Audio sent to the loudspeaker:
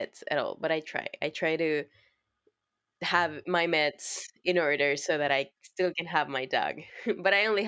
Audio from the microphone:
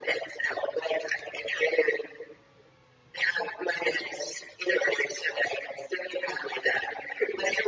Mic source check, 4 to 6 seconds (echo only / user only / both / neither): echo only